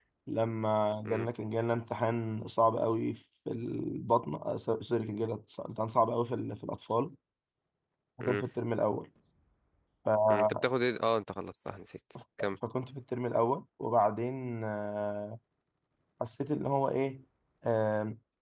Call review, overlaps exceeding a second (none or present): none